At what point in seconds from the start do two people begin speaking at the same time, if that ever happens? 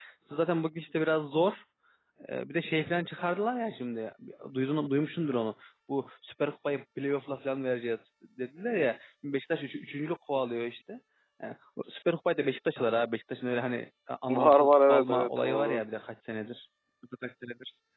14.3 s

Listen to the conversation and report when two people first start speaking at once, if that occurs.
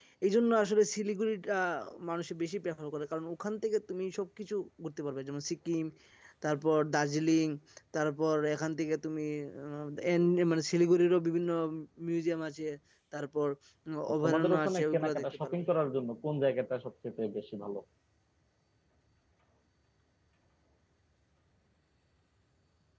14.2 s

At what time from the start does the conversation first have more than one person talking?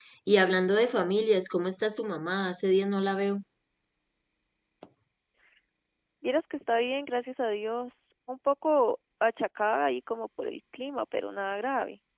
none

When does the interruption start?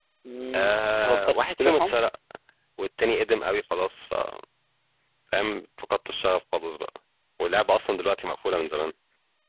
0.5 s

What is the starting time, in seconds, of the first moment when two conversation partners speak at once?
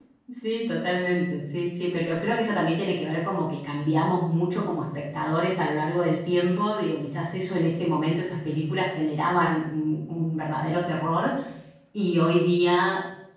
none

